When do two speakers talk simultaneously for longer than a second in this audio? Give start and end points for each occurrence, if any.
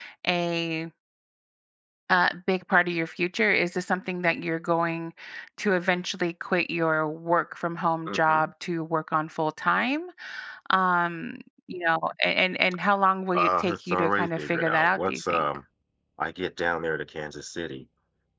13.3-15.4

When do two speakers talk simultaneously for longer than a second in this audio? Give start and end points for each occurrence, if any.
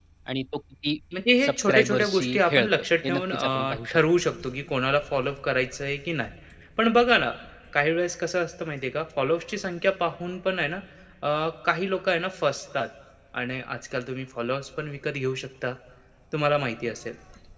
1.4-4.0

